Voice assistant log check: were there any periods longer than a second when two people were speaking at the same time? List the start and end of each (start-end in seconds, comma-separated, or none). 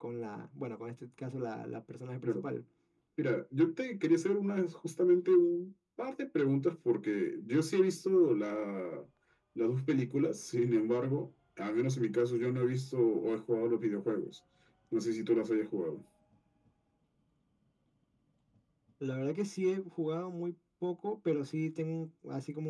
none